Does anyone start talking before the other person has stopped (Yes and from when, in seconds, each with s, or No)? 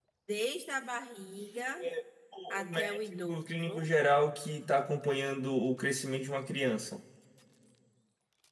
Yes, from 2.5 s